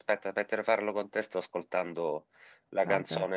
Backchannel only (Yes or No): Yes